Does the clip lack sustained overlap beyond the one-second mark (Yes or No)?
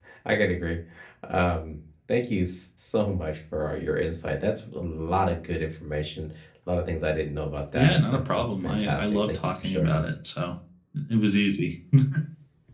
No